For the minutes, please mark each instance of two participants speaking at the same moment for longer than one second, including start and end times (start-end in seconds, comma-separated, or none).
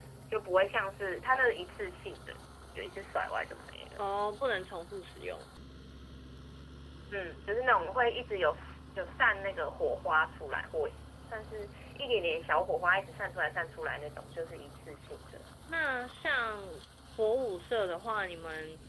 none